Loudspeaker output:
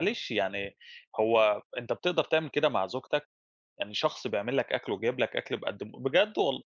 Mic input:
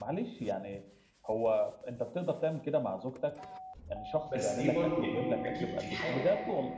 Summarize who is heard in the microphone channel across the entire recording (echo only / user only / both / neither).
both